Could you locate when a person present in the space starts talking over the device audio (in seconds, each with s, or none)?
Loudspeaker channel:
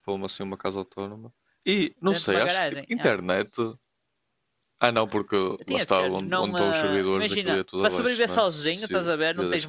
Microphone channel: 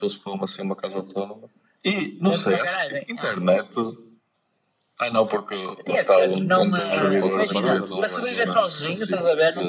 6.9 s